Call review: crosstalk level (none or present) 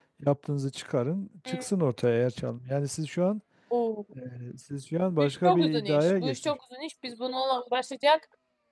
present